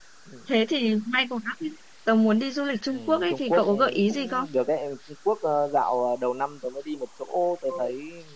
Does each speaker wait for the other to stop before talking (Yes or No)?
No